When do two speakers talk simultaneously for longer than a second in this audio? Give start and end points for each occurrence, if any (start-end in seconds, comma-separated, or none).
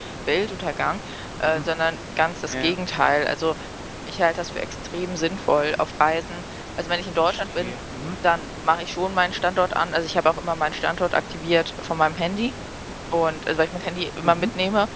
none